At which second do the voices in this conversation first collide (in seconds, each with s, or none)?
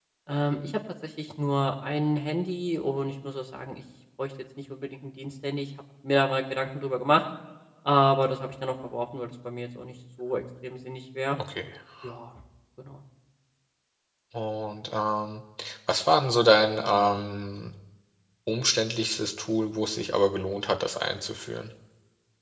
none